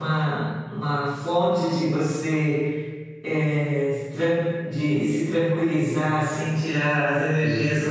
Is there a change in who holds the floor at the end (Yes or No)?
No